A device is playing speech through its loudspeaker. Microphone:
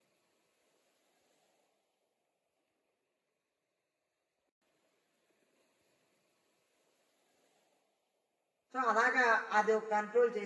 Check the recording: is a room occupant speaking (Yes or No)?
Yes